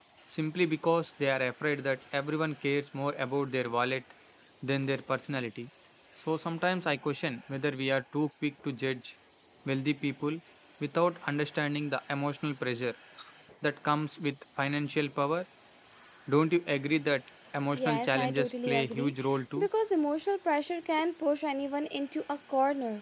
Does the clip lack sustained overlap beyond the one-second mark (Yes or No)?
No